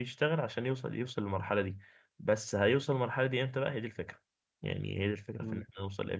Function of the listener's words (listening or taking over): listening